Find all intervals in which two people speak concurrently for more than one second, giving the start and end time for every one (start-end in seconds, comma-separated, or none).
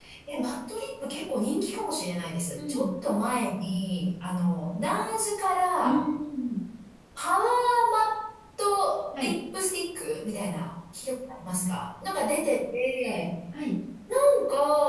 none